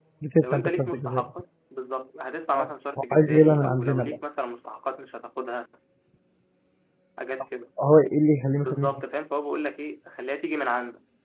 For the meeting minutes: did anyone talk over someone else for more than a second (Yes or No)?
Yes